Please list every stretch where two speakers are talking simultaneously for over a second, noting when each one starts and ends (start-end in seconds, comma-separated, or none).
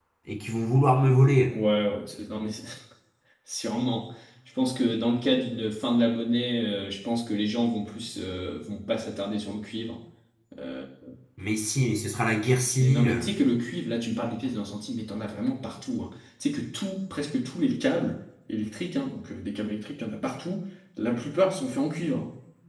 none